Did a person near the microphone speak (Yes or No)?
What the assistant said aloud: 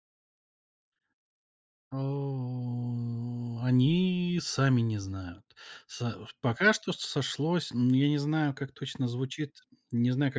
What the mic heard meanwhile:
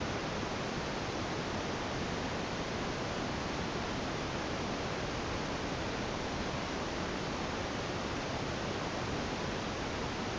No